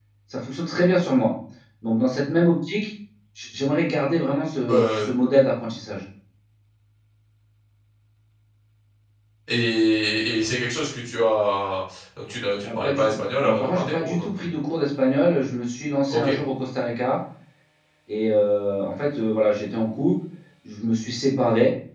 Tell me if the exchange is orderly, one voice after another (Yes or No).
No